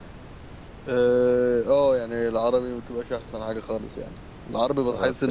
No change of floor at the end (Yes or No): Yes